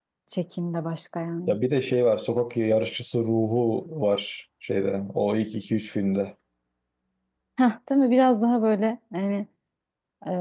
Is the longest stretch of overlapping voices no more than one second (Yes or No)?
Yes